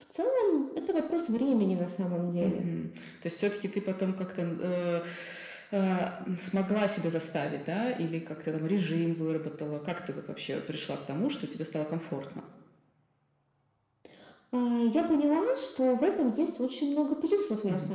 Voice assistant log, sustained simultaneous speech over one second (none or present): none